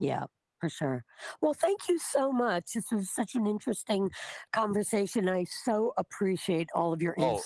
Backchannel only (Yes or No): No